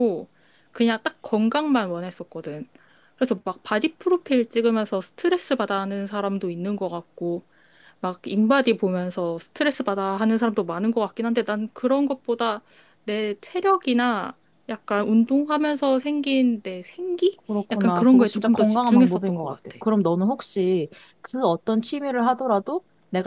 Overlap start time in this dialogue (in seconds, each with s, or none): 17.5 s